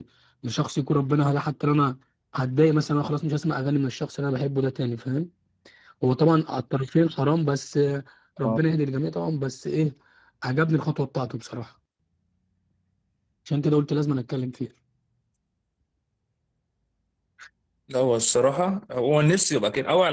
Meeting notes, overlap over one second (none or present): none